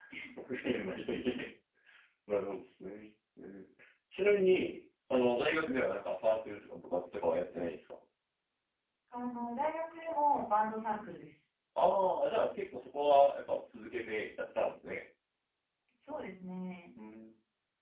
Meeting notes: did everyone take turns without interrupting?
Yes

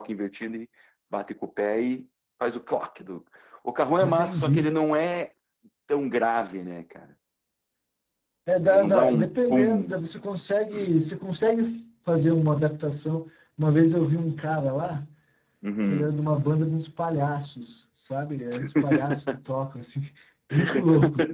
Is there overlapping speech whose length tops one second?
Yes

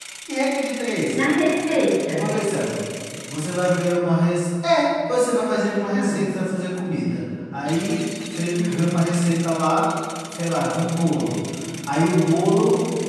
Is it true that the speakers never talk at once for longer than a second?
Yes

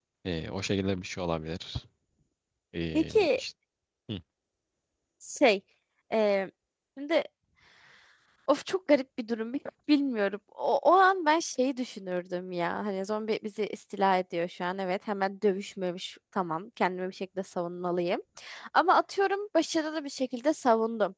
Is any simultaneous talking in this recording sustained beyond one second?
No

